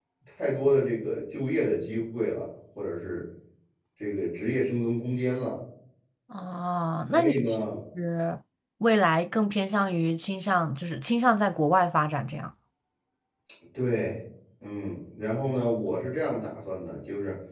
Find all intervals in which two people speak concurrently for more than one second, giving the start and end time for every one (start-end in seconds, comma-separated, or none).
none